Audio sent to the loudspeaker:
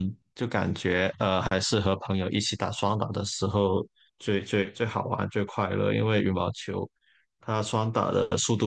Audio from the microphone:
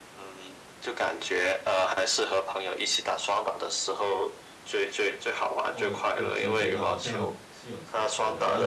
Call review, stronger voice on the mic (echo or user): echo